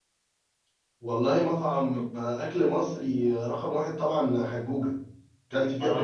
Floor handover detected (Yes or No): Yes